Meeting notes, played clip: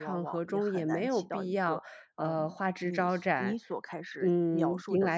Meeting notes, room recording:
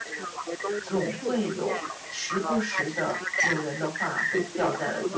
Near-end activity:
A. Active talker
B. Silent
A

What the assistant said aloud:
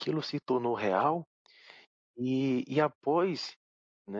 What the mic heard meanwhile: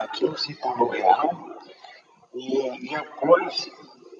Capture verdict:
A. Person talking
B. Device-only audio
B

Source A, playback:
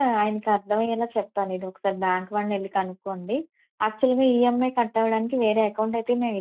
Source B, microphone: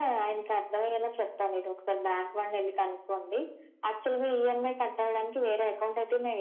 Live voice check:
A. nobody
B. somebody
A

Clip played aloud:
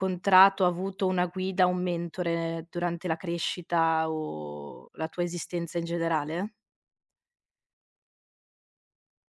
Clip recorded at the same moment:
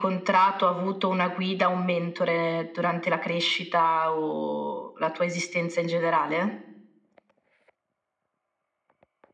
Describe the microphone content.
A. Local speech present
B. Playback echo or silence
B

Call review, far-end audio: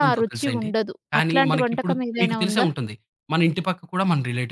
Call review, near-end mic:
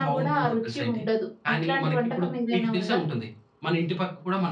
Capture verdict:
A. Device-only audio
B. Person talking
A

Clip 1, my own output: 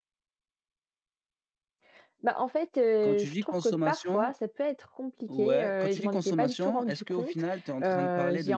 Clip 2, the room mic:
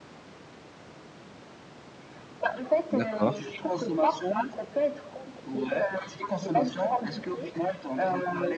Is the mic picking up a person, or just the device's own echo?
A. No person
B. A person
B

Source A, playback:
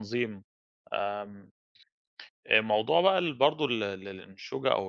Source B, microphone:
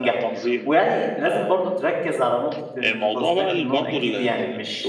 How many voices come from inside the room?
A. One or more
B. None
A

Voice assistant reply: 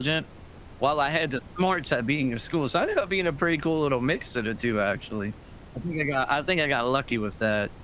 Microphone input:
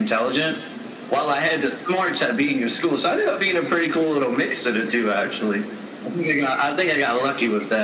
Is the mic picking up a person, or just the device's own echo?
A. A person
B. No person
B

